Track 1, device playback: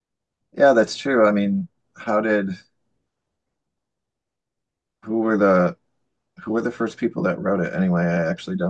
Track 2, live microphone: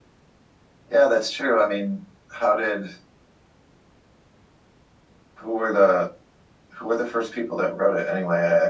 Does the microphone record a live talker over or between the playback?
No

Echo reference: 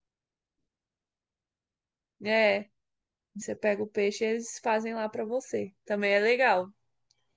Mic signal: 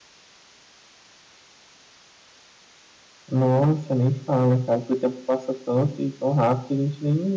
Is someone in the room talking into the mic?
Yes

